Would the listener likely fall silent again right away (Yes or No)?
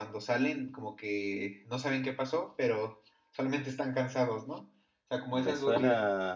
No